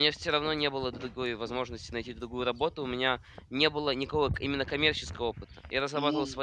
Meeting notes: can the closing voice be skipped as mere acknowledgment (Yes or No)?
Yes